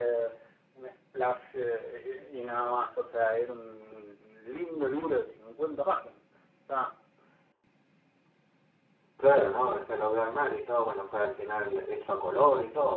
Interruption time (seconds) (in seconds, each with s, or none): none